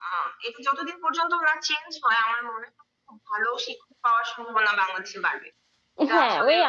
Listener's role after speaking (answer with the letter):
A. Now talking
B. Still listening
A